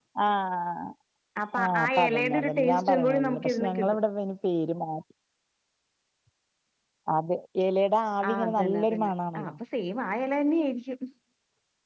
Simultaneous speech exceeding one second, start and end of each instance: 1.6-4.0, 8.3-9.5

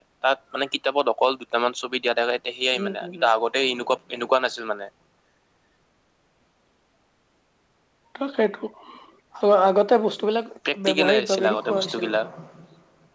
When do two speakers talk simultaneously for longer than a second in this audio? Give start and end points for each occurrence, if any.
10.9-12.1

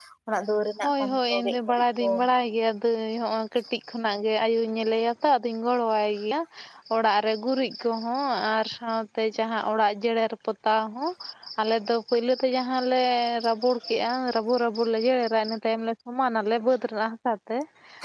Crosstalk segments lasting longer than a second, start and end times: 0.8-2.1

